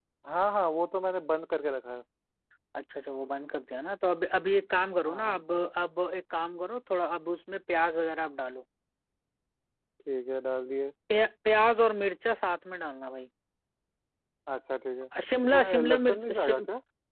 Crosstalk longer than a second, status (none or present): present